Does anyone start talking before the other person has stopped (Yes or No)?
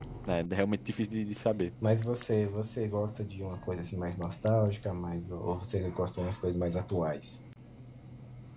No